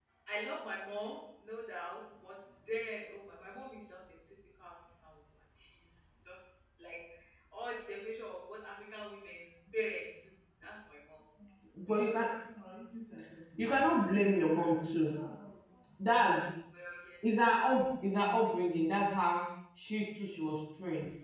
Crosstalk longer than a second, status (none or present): none